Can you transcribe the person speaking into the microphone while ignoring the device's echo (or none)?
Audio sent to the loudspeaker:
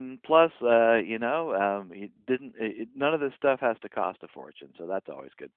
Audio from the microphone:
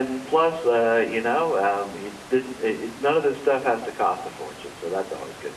none